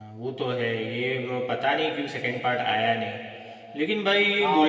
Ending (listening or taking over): taking over